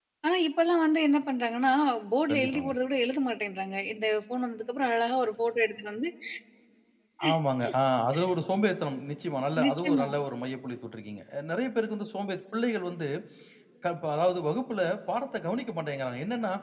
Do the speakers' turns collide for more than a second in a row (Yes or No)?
No